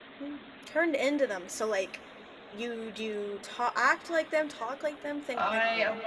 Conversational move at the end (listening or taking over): taking over